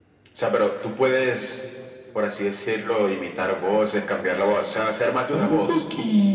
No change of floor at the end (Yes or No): No